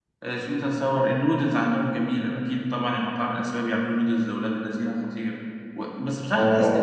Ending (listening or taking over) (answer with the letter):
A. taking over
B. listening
B